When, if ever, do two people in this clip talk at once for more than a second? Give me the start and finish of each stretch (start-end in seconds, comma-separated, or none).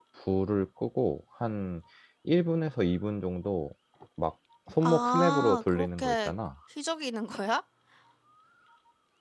4.8-6.3